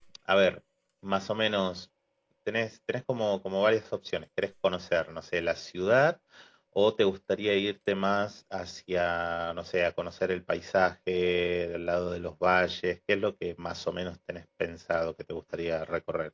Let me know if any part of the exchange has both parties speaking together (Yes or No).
No